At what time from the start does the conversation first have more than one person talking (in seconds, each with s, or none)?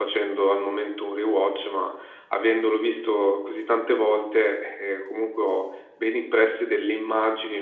none